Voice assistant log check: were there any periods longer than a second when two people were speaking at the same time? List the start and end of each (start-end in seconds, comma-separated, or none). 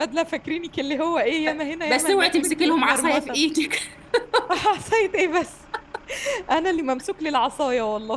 1.9-3.4